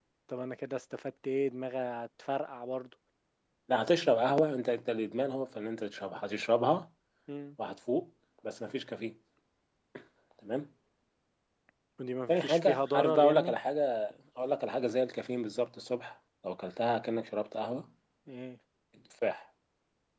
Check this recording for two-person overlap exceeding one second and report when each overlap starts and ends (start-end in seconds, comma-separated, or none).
12.3-13.6